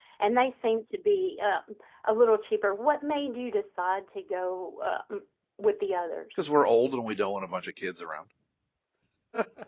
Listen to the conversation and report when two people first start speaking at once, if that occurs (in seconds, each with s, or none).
none